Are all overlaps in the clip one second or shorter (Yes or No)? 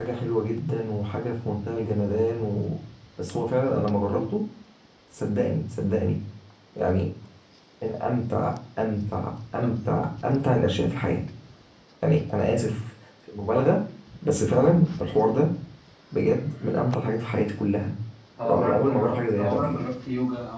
No